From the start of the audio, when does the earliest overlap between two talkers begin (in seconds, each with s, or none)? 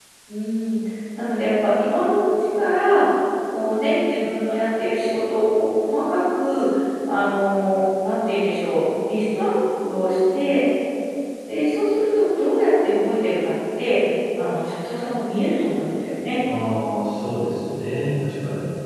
none